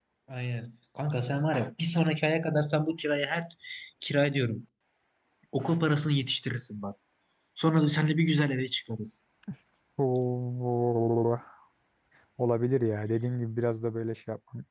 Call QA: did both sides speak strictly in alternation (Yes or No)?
Yes